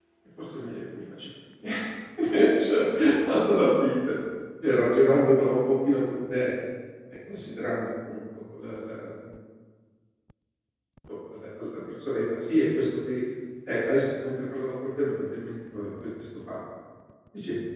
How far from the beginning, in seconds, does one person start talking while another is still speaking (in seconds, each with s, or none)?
none